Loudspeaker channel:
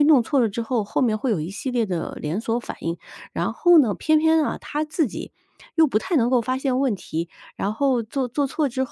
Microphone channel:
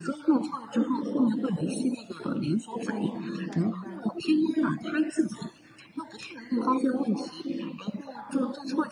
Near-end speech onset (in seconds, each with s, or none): 2.8 s